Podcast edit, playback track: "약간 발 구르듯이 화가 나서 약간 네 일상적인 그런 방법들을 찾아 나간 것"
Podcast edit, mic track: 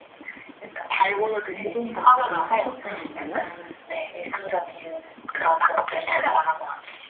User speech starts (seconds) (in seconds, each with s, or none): 1.5 s